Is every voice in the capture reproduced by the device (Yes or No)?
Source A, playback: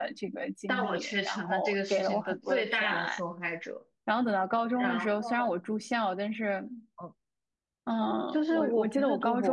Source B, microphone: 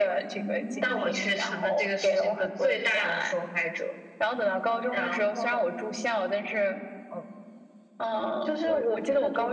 No